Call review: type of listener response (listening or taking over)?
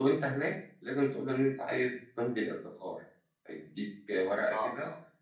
listening